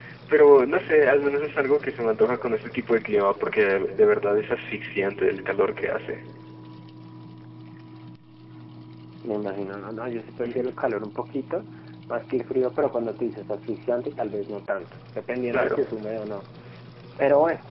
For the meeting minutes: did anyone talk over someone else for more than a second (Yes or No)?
No